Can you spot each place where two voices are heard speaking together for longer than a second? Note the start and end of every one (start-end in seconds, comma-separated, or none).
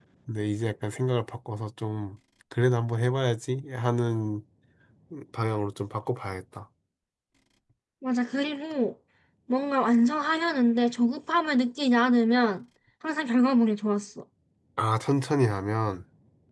none